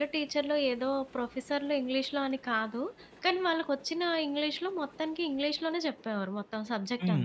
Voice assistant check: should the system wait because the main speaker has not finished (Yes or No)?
No